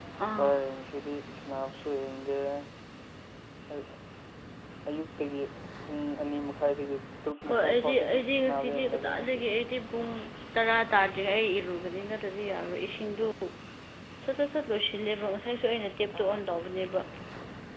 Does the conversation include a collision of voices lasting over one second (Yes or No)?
Yes